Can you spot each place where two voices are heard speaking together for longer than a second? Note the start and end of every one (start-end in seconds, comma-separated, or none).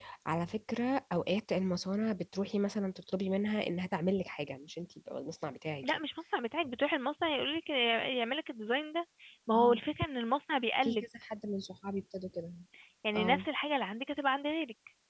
none